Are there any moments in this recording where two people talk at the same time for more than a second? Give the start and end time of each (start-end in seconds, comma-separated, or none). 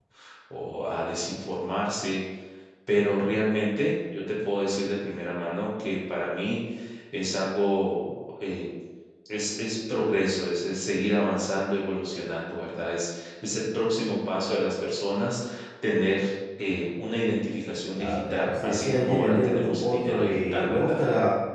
17.9-21.0